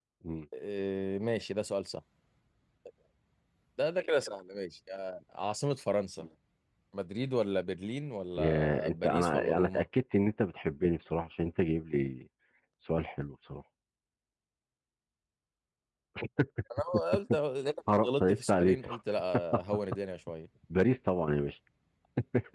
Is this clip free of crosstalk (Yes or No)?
No